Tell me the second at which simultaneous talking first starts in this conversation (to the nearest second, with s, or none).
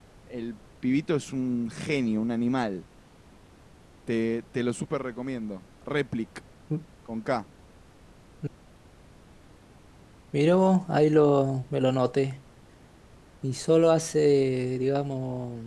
none